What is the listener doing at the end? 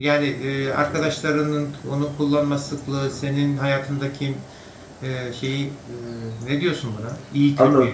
taking over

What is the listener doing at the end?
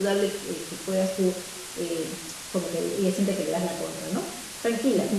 taking over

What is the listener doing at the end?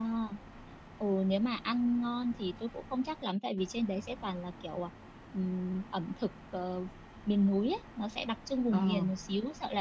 listening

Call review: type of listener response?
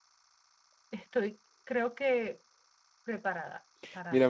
taking over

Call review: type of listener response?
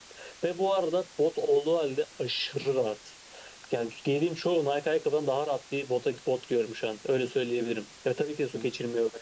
listening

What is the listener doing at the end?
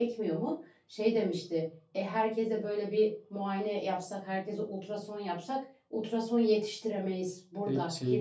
taking over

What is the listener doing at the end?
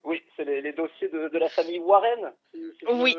taking over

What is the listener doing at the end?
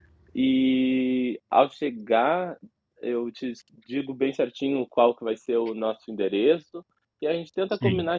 listening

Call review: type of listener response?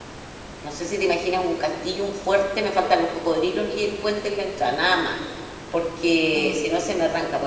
listening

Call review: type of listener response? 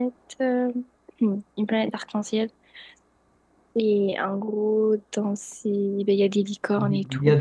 taking over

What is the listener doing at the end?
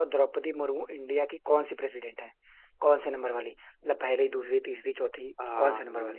taking over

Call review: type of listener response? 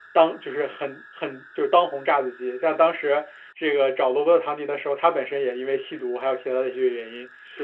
listening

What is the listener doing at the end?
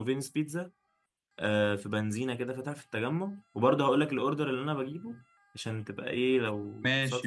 listening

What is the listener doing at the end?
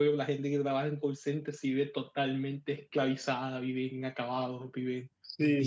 taking over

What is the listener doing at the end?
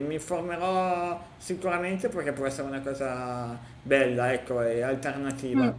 listening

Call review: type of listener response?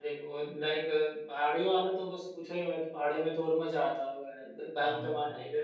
listening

